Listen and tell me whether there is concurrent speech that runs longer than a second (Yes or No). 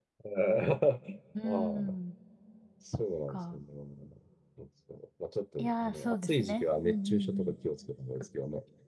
Yes